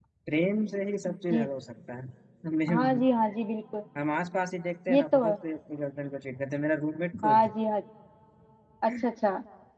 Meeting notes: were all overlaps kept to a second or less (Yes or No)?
Yes